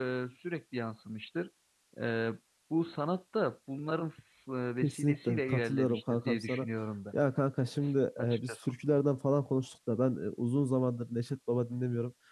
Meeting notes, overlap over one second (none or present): present